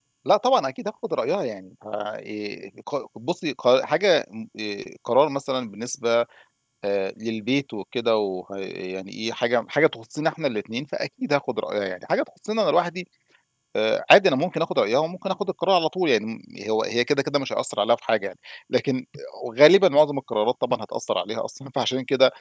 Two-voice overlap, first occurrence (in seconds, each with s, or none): none